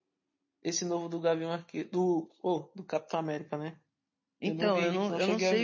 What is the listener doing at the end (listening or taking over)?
taking over